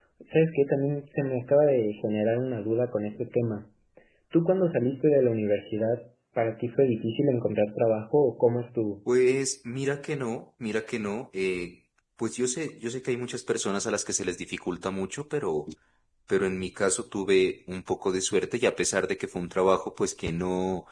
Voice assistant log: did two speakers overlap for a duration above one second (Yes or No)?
No